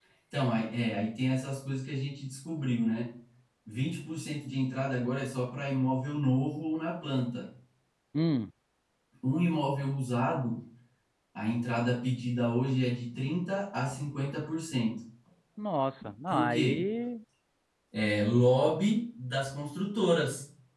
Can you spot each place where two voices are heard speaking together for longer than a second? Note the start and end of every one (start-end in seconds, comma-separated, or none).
none